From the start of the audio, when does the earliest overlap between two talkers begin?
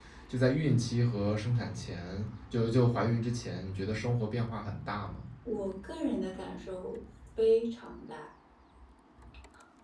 none

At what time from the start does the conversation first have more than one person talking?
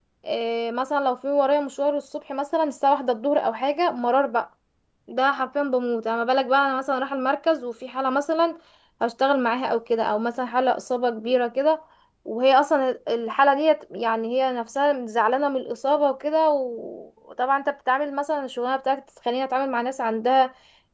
none

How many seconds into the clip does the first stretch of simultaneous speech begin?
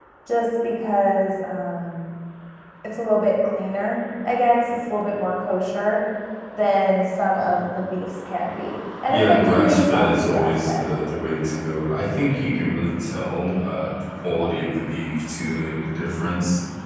9.1 s

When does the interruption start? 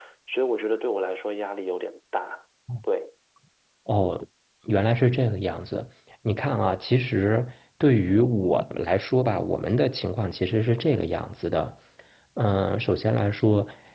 none

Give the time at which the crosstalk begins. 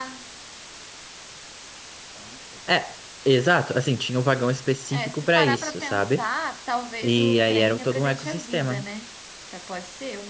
4.9 s

